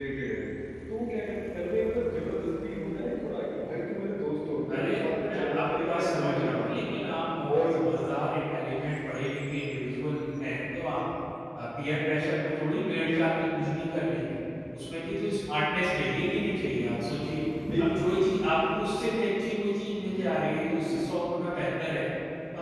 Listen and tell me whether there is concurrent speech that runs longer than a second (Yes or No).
Yes